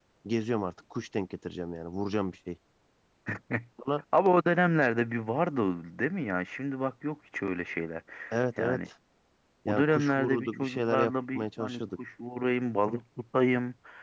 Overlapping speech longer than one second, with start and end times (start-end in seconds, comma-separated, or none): 9.7-11.8